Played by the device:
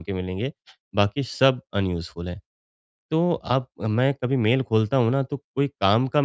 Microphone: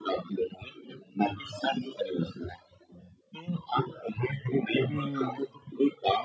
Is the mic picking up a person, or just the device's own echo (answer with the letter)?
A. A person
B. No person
A